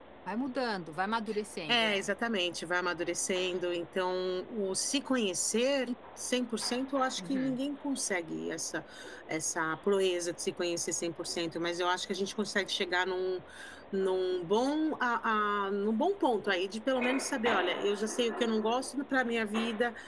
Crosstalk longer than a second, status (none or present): none